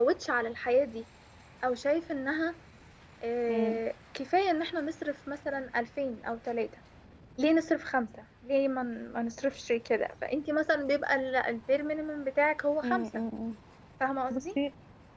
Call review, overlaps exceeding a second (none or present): none